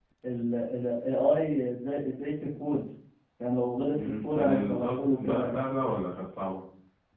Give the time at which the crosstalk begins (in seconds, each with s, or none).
3.9 s